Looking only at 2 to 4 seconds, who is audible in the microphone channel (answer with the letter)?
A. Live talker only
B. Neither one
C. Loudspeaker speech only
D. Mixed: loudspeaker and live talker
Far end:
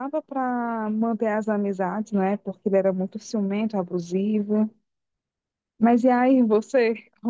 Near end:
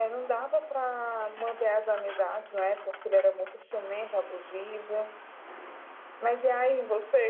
C